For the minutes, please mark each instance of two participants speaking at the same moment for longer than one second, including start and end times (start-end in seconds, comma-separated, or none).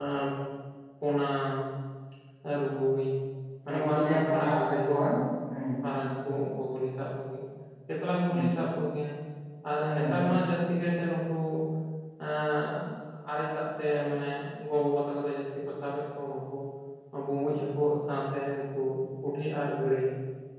3.6-5.1